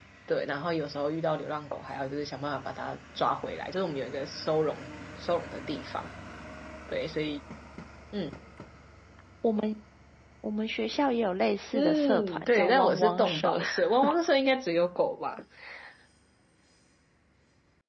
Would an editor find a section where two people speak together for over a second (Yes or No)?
Yes